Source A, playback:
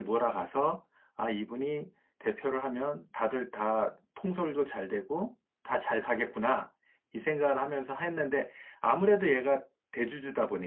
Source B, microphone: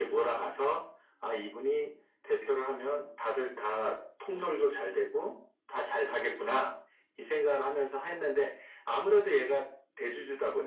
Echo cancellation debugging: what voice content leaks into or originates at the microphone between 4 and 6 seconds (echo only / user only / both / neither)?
echo only